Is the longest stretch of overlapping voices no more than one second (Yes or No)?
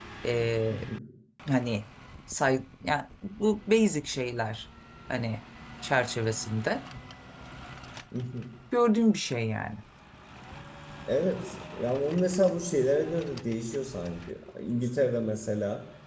Yes